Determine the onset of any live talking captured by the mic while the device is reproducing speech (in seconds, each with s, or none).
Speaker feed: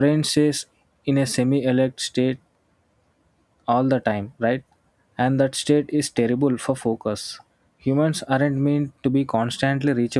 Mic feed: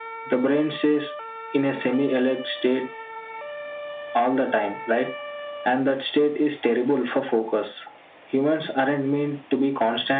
none